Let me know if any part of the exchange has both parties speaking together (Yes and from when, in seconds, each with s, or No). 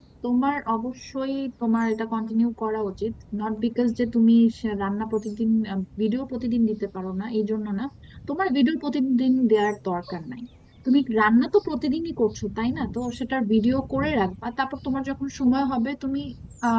No